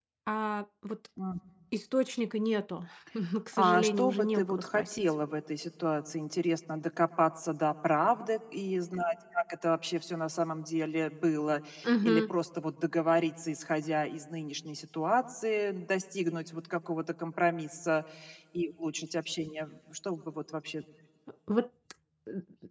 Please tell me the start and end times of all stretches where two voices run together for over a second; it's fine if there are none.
3.5-5.0

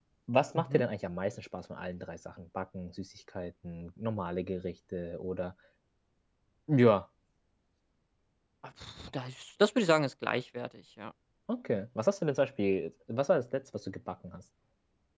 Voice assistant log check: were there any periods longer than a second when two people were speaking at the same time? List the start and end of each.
none

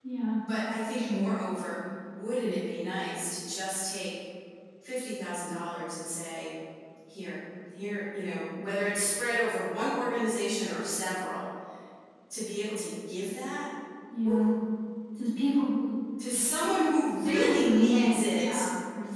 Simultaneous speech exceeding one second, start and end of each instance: 17.2-18.6

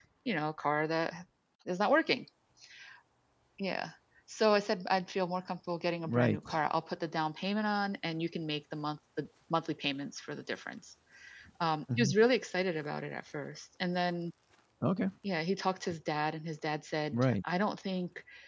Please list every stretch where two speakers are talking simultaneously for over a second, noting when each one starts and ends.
none

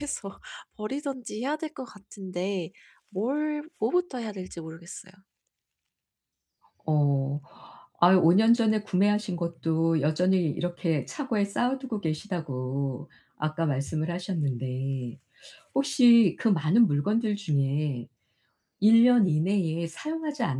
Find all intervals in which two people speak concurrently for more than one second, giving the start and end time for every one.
none

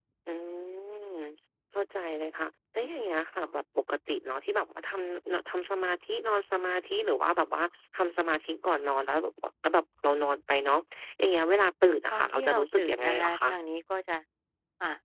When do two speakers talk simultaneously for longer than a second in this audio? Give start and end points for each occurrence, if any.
12.1-13.4

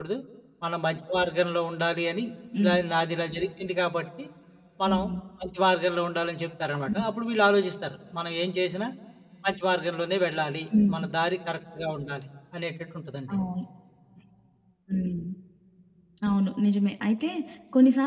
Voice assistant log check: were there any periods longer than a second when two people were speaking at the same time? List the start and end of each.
none

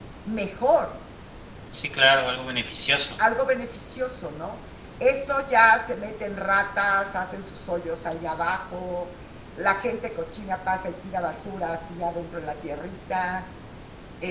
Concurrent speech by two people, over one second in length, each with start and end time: none

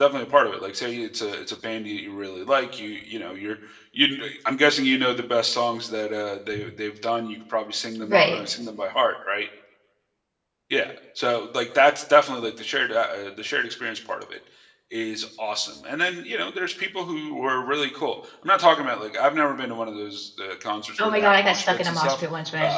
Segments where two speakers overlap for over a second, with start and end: 21.0-22.2

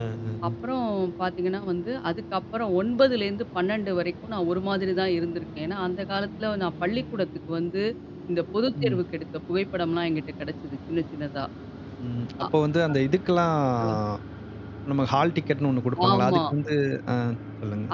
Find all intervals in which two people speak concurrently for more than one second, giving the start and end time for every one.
none

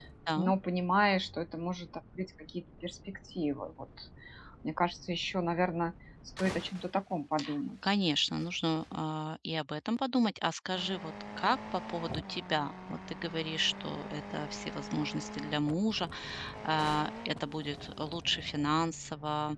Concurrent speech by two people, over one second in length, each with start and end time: none

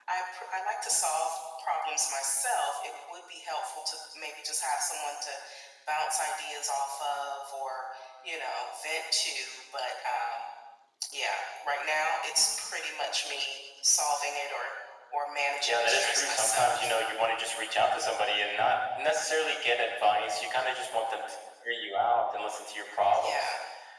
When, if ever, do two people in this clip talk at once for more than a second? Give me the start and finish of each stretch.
15.6-17.0

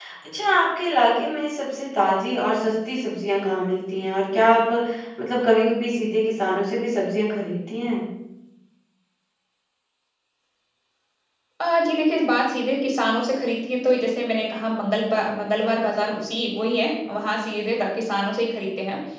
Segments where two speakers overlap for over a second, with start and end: none

